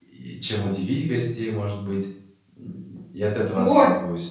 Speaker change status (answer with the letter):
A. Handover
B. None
A